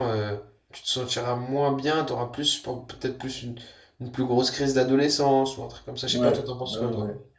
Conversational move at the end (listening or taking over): taking over